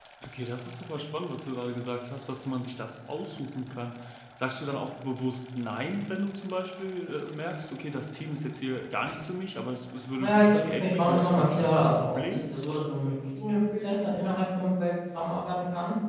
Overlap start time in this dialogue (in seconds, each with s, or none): 10.2 s